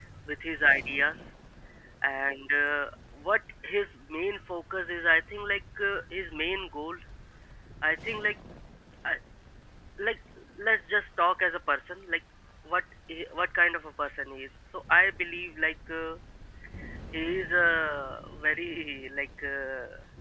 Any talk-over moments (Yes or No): No